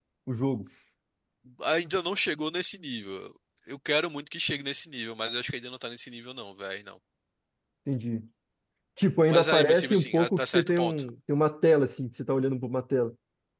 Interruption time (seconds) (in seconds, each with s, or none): 9.3 s